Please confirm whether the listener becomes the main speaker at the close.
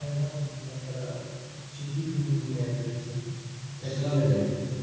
No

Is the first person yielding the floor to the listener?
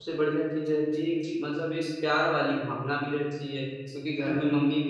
No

